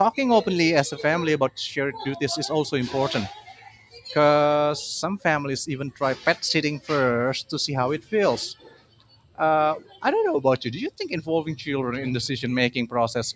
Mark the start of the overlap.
none

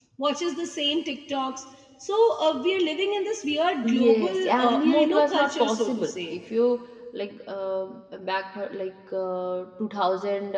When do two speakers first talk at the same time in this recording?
3.8 s

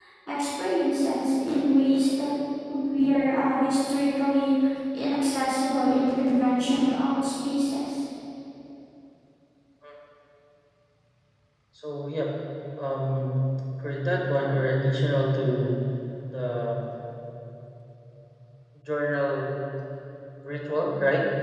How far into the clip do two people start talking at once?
none

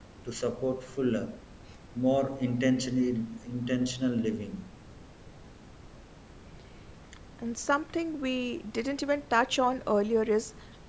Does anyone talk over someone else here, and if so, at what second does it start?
none

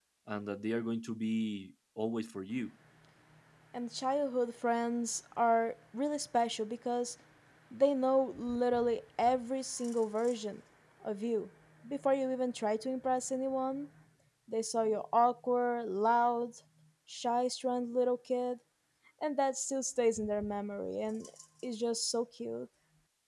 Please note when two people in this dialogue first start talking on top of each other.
none

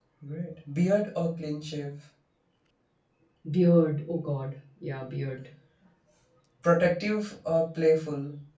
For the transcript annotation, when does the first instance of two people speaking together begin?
none

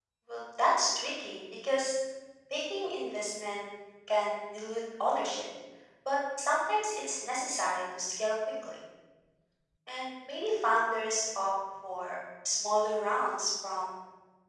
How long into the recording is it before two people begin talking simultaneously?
none

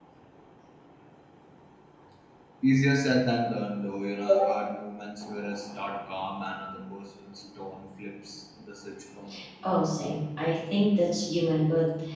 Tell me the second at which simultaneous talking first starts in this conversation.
none

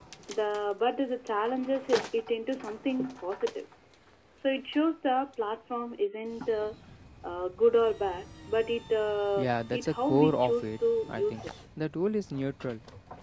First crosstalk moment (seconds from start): 9.4 s

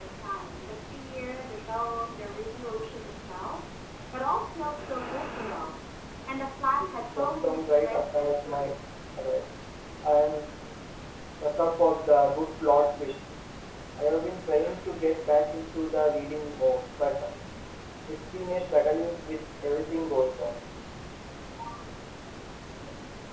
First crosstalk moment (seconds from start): 7.1 s

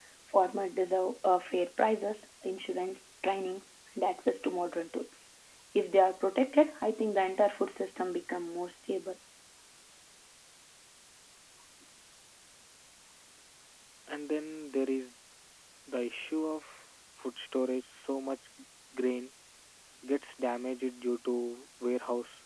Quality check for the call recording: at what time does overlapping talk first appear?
none

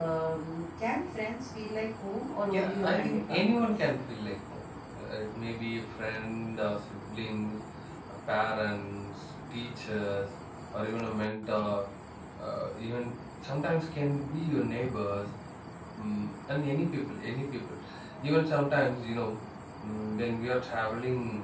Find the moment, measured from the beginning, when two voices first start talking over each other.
2.5 s

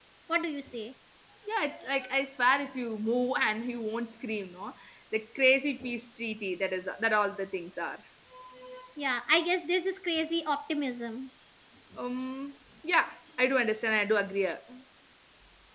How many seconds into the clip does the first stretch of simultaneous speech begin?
none

